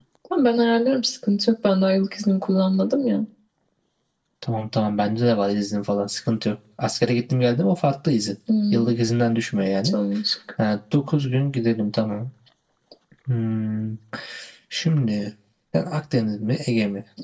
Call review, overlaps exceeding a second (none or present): none